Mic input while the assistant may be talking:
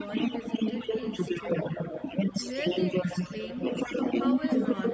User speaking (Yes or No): Yes